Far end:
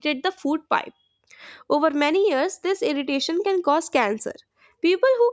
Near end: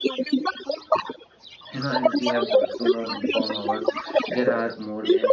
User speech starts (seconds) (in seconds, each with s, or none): 1.7 s